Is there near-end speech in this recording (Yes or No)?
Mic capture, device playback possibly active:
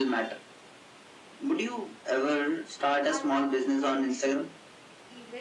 Yes